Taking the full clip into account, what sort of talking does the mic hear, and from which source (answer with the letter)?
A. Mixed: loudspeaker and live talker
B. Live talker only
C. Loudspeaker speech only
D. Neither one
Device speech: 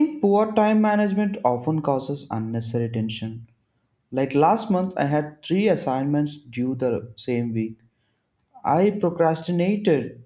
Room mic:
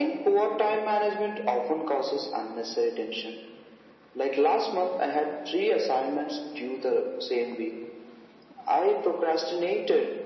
C